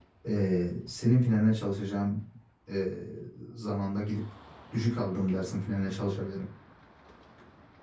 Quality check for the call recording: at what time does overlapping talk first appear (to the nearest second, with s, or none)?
none